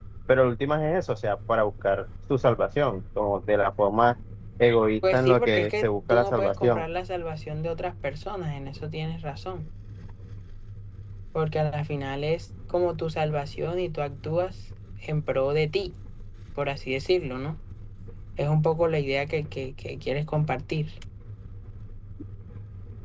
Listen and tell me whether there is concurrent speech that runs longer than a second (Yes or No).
Yes